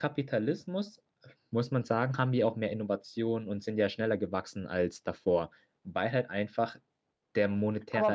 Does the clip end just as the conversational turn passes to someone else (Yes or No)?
Yes